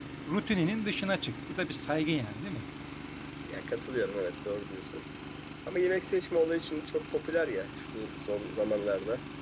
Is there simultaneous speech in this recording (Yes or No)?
No